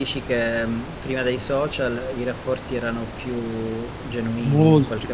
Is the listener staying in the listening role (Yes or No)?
No